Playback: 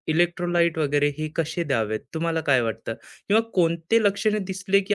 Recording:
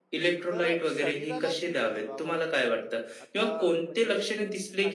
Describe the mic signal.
both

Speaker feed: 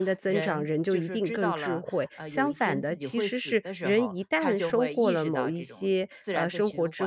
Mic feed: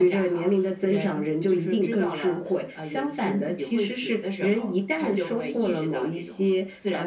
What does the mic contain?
echo only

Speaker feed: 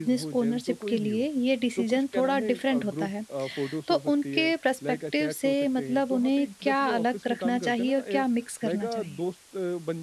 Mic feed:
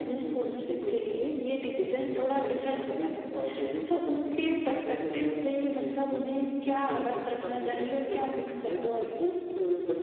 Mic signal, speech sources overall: echo only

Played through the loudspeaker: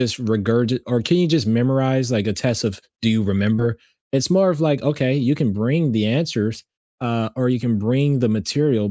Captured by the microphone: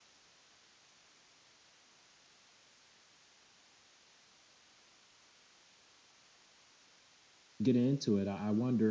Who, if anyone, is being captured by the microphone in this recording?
user only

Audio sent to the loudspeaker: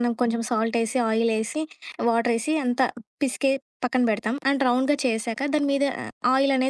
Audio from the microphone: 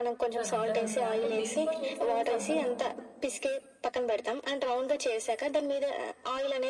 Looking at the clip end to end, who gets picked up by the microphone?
both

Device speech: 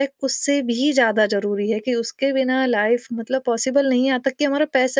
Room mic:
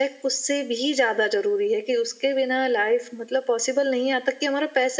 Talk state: echo only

